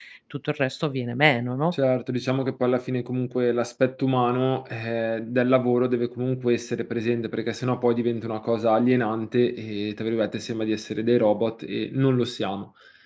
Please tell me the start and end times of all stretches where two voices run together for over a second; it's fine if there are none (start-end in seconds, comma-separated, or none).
none